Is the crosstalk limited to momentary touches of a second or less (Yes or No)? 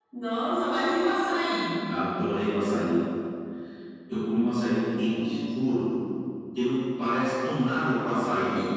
Yes